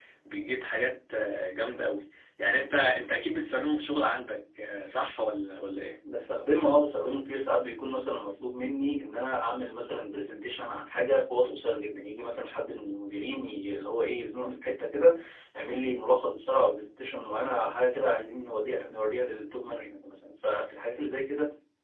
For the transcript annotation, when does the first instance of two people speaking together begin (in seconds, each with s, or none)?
none